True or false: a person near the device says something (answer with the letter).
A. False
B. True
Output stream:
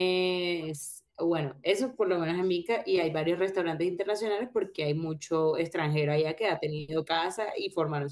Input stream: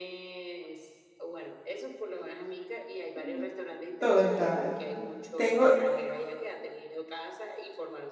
B